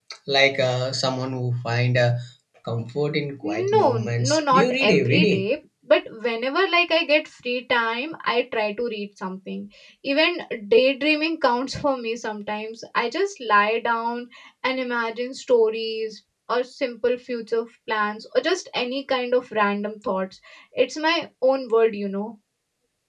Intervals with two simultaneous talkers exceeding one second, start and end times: 3.5-5.4

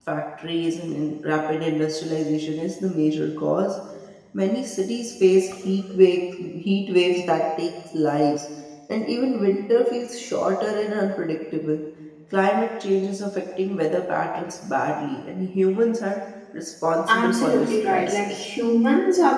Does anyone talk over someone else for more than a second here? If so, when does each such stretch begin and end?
17.1-18.5

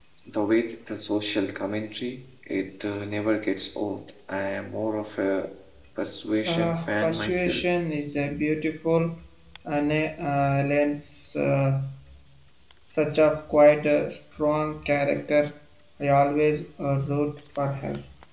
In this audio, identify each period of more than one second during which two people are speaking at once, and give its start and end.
6.5-7.7

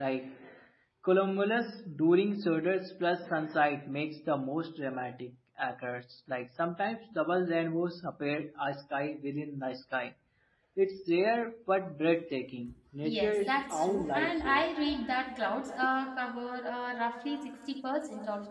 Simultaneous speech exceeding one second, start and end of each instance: 13.0-14.6

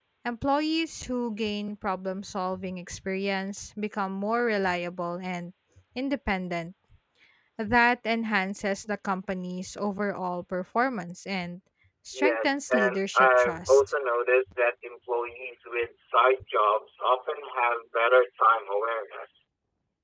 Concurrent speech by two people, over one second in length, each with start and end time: 12.1-13.9

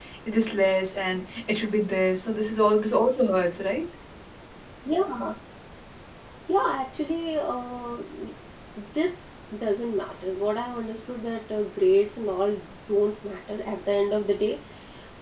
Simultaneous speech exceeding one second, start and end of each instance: none

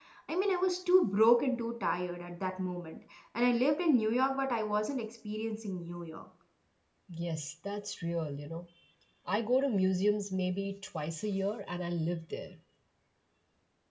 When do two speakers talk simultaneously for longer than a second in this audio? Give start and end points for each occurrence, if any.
none

